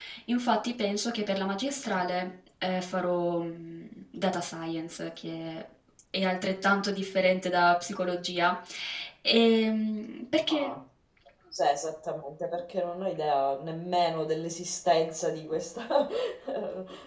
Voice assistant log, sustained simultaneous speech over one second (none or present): none